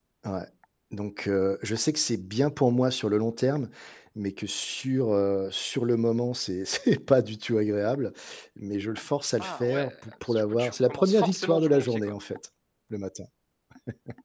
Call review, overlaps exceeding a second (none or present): present